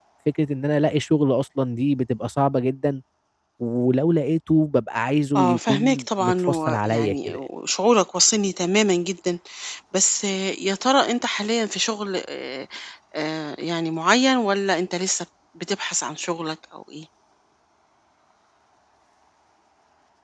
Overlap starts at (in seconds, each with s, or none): 5.3 s